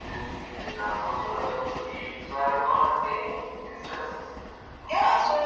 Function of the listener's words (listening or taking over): taking over